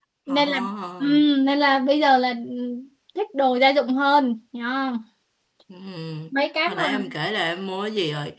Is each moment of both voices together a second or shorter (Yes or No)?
Yes